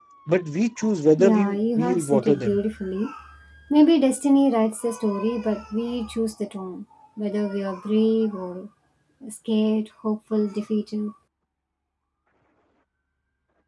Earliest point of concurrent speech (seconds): 1.2 s

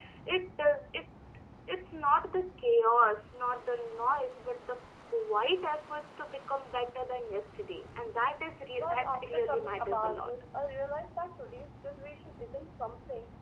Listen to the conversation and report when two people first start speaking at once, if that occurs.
8.8 s

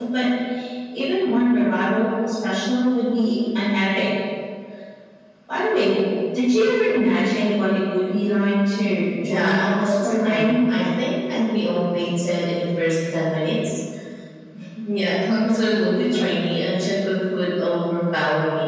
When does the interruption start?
9.2 s

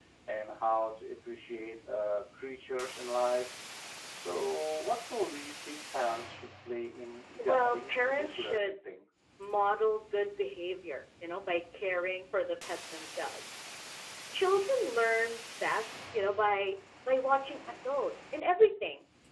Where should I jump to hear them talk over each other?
7.4 s

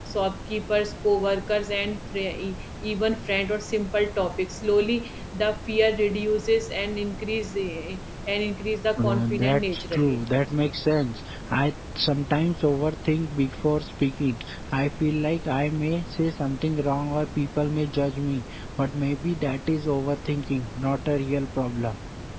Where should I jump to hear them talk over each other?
9.0 s

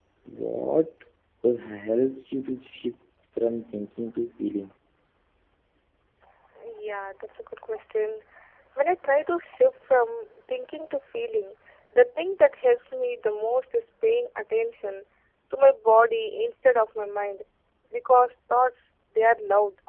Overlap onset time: none

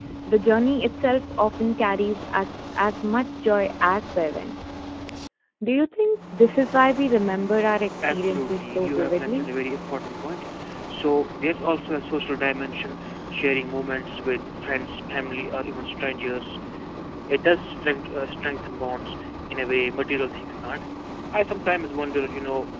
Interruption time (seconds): 8.0 s

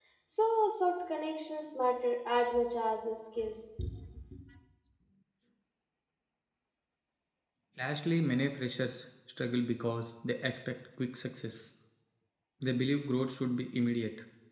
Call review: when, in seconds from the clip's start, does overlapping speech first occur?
none

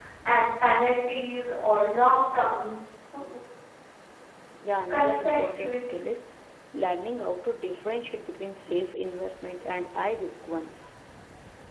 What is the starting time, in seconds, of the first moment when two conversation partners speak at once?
4.9 s

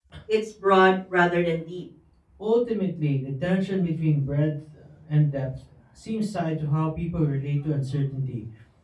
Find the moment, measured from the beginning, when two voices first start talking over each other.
none

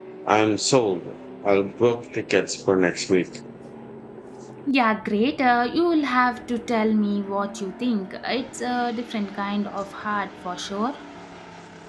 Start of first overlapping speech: none

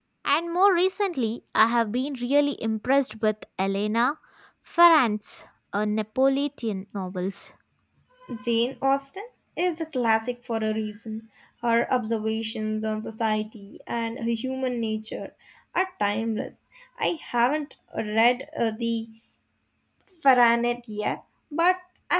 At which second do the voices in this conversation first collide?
none

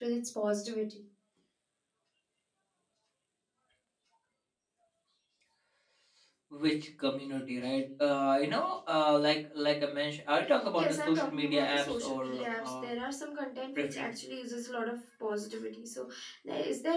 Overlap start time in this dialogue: 10.8 s

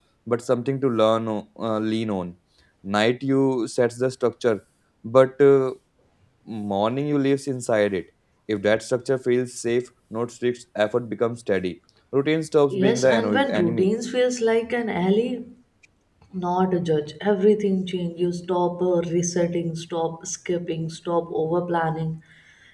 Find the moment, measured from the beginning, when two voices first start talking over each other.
12.7 s

